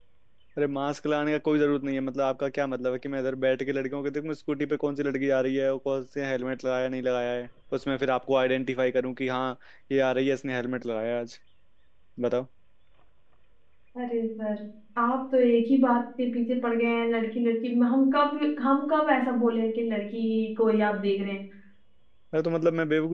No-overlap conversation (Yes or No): Yes